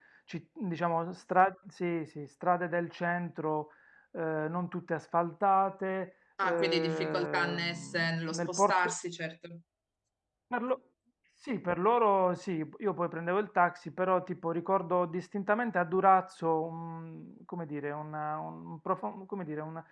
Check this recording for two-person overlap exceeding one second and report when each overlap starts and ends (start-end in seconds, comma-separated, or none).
6.4-8.9